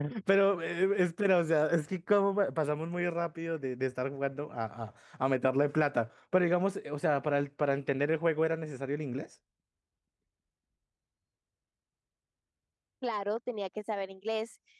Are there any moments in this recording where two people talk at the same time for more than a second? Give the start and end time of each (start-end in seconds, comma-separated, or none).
none